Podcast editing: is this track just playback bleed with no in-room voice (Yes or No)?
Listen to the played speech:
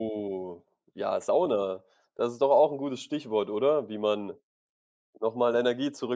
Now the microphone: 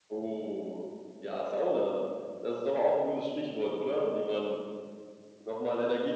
Yes